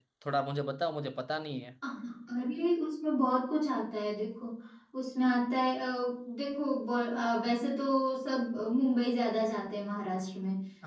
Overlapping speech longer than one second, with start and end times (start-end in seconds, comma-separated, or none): none